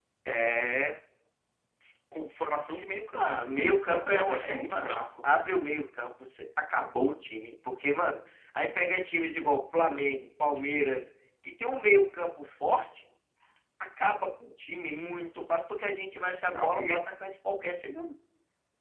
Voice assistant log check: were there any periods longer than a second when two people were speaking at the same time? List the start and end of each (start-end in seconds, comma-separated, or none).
3.2-5.0